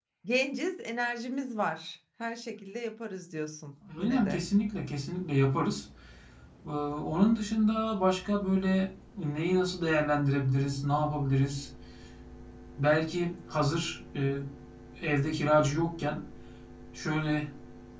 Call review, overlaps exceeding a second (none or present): none